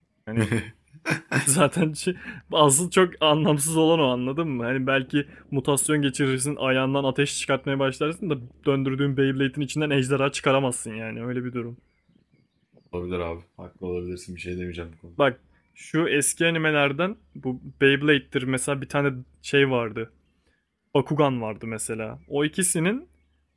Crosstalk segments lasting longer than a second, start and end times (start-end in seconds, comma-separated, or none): none